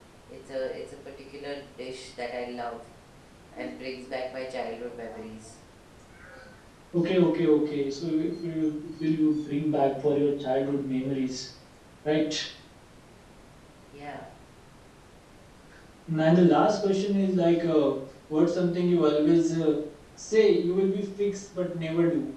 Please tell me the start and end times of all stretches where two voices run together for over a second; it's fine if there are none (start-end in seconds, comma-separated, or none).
none